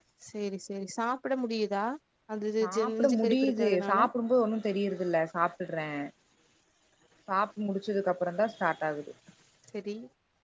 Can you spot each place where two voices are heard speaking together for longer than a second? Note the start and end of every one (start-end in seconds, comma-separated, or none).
2.6-4.0